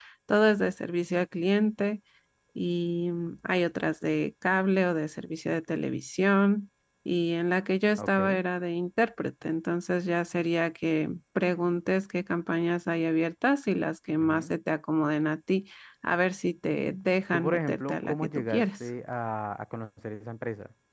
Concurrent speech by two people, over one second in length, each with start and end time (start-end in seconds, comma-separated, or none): 17.3-18.6